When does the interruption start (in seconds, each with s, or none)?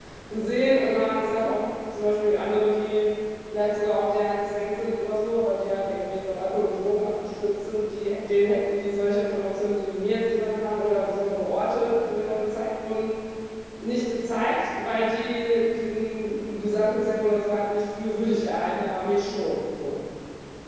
none